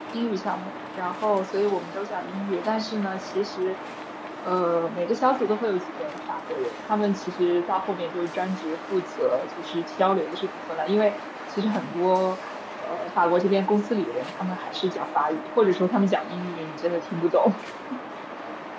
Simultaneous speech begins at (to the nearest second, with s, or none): none